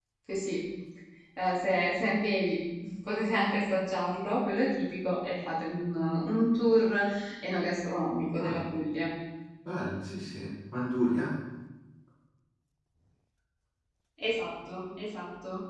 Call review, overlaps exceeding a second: none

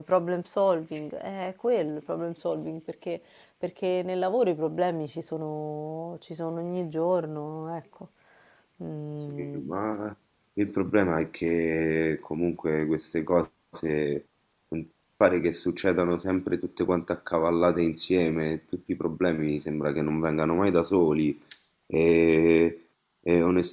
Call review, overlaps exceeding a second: none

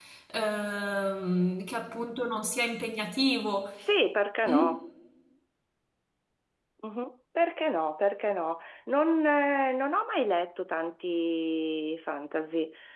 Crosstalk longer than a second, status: none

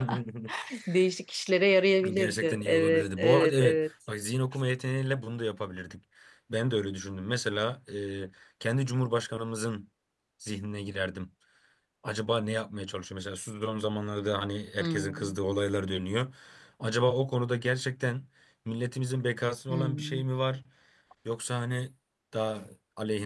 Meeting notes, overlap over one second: present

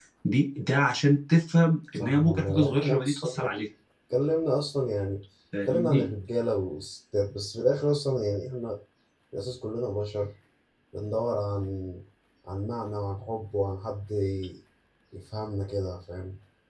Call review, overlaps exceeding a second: present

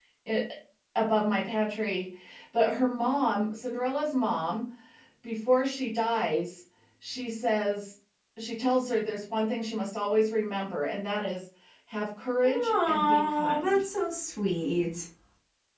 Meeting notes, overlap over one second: present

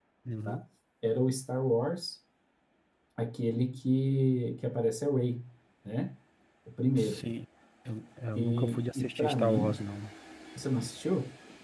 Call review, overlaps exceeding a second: present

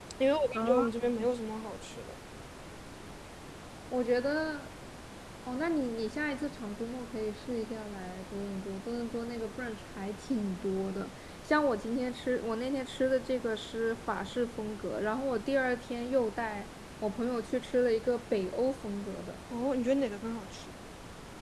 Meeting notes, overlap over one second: none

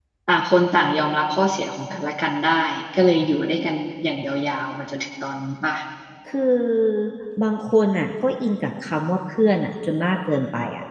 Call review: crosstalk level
none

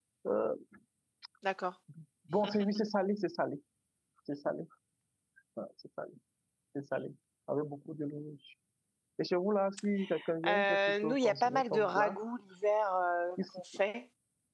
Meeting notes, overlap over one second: present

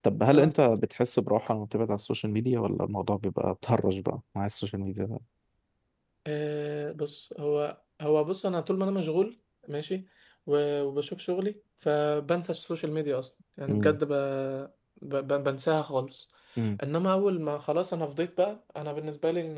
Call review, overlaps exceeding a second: none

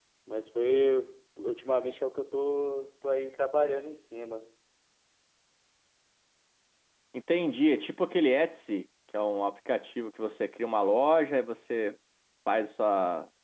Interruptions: none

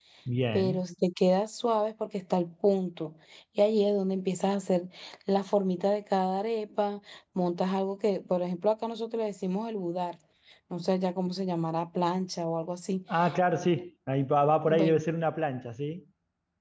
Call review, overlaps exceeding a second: none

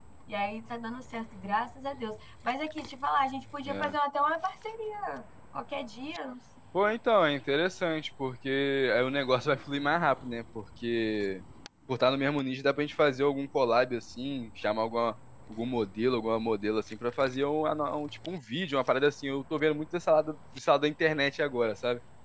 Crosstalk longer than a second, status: none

